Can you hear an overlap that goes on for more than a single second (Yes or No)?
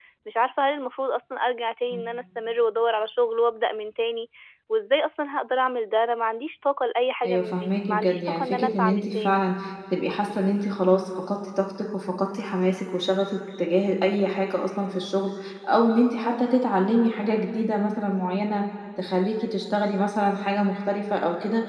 Yes